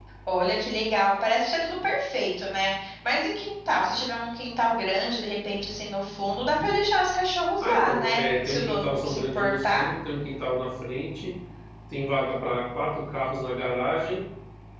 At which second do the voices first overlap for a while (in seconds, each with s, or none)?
7.6 s